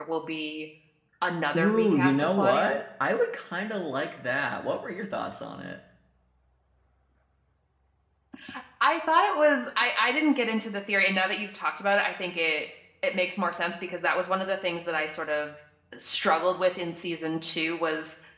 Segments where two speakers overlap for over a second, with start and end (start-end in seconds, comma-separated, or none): 1.6-2.8